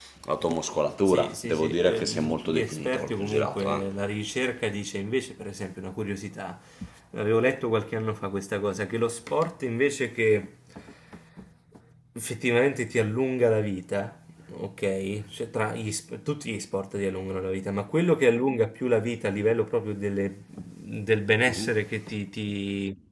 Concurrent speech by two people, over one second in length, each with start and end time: 1.1-3.9

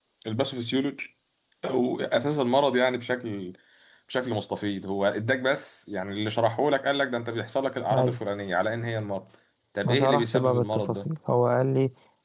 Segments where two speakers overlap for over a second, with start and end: 9.8-11.1

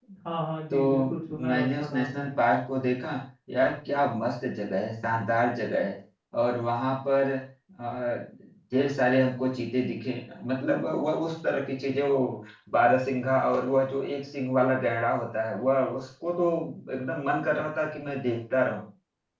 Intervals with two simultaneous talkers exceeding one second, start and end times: 0.7-2.3

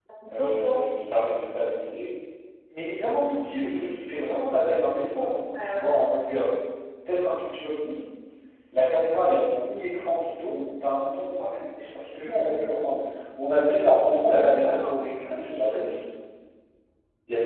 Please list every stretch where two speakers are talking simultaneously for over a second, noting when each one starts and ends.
14.7-15.9

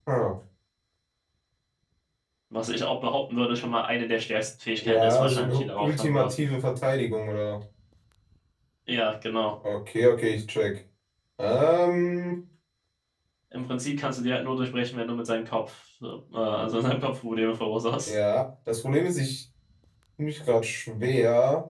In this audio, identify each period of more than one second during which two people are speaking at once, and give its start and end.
4.8-6.3

